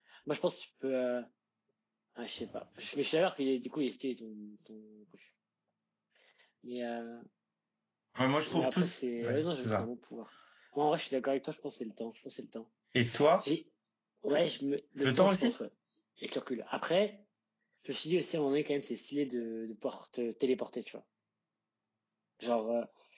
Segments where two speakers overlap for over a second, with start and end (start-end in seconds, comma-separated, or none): 8.5-9.9